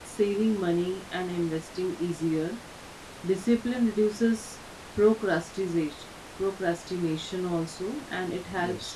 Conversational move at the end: listening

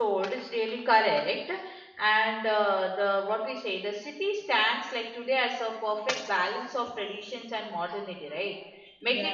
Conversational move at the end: listening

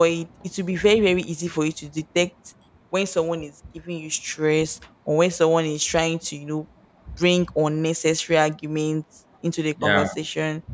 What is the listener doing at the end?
listening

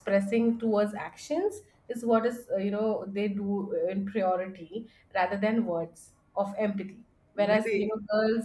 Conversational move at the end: listening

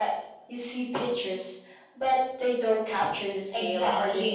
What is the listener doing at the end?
taking over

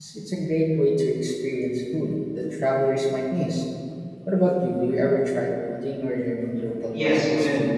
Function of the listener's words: taking over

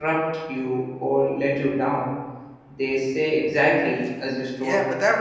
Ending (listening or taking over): taking over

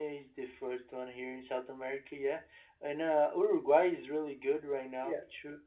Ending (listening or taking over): taking over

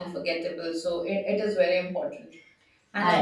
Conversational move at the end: listening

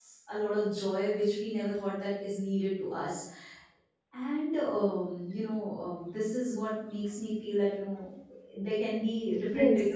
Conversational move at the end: taking over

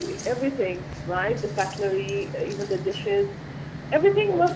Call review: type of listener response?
listening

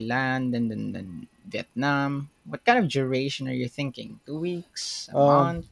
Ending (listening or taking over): taking over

